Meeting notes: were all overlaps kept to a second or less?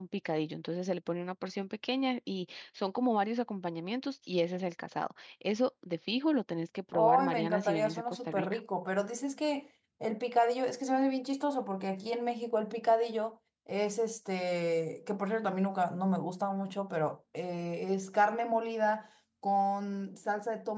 No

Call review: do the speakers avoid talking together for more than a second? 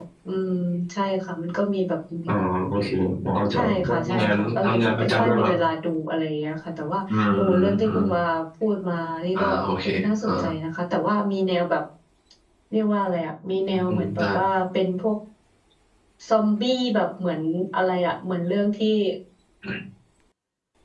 No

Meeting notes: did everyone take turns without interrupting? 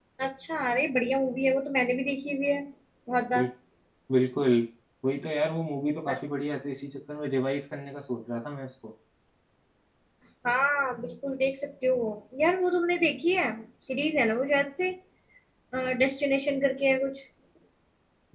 Yes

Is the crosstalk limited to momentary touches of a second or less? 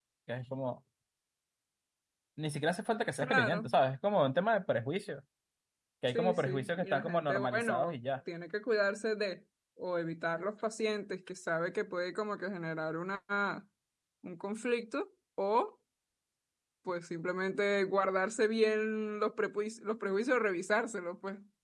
No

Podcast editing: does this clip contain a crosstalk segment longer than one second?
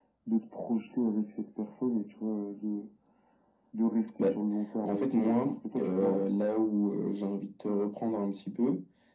Yes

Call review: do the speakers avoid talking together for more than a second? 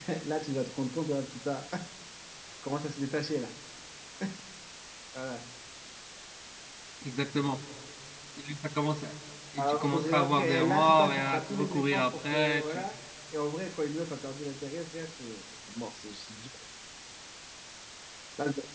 No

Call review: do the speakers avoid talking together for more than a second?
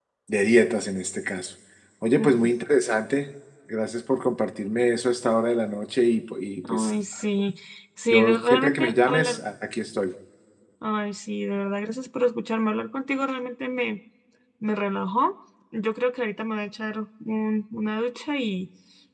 No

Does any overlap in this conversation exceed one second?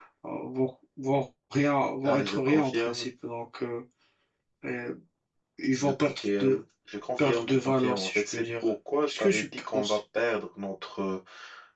Yes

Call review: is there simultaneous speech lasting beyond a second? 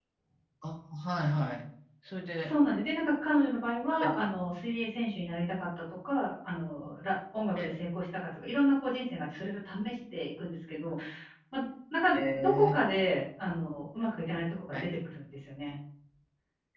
No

